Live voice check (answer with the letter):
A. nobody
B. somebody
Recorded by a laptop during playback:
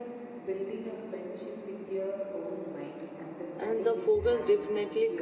B